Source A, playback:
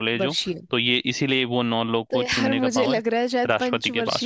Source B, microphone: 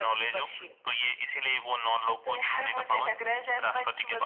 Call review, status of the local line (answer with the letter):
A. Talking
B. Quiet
B